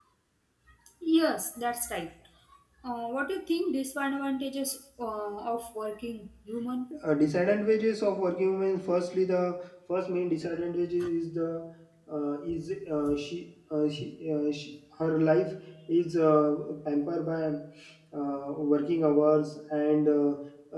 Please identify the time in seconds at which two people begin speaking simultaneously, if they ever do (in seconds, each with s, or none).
none